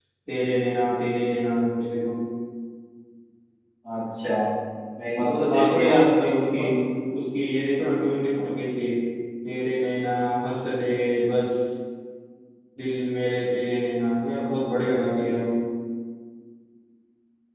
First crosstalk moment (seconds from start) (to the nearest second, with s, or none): 5 s